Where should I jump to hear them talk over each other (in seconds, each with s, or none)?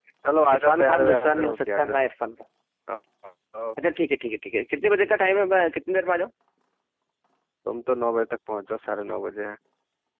0.5 s